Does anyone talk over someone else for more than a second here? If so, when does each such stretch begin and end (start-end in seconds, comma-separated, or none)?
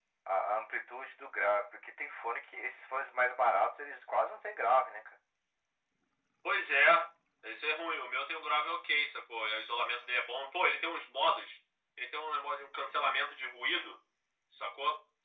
none